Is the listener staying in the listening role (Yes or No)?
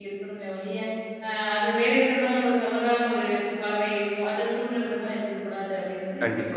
No